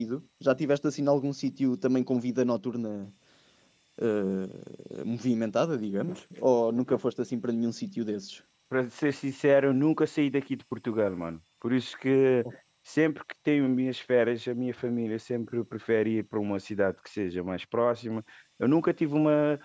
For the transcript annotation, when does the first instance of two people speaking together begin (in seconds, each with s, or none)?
none